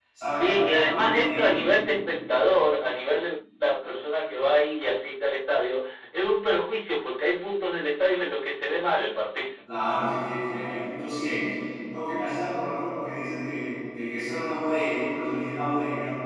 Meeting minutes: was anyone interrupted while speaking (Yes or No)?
Yes